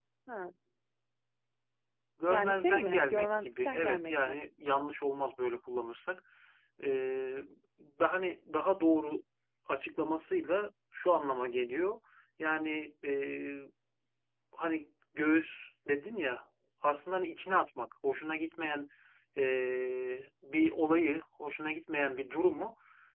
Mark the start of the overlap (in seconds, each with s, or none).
2.3 s